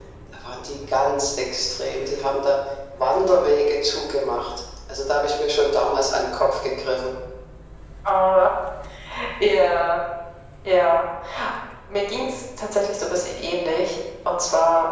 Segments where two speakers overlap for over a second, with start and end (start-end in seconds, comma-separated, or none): none